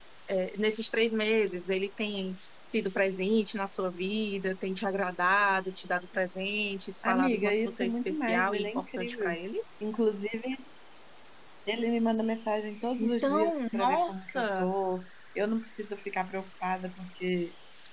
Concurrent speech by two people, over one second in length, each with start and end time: 7.0-9.4, 13.0-14.7

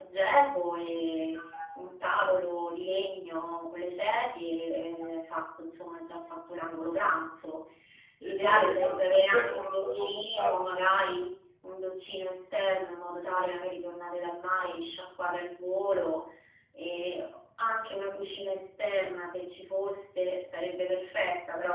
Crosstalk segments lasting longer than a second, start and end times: 8.2-10.6

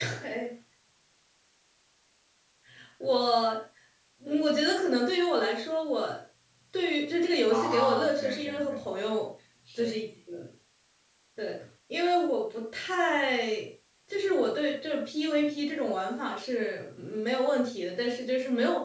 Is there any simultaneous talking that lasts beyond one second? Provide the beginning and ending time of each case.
7.5-8.8

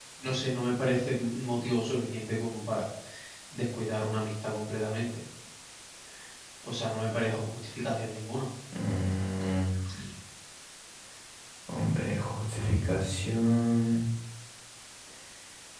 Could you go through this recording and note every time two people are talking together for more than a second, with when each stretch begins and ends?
none

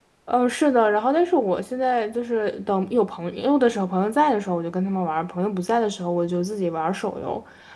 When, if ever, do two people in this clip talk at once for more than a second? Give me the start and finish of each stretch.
none

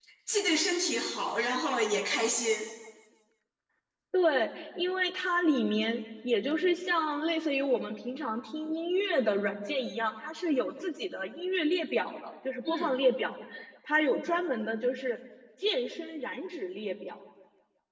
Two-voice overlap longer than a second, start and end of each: none

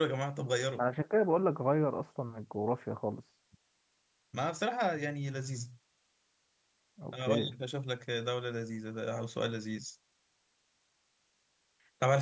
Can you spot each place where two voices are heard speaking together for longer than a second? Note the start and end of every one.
none

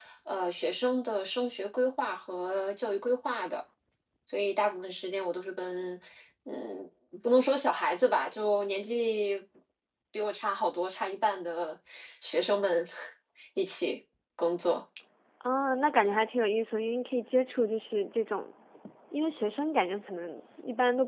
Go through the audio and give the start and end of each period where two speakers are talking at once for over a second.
none

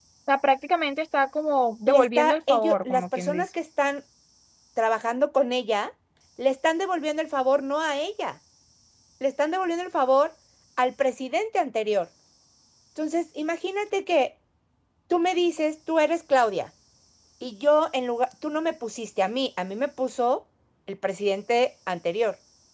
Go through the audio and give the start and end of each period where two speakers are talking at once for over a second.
1.9-3.4

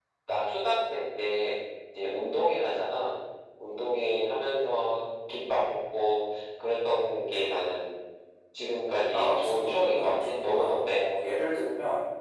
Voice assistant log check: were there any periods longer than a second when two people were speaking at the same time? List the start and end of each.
9.1-11.0

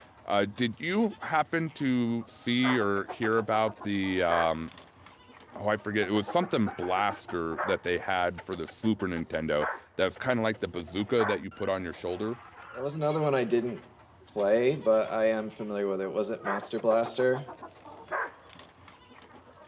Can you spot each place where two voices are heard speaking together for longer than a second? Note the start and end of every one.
none

